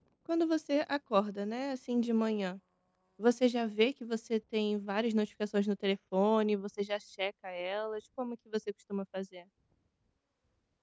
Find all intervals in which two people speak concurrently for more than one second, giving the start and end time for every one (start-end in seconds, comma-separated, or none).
none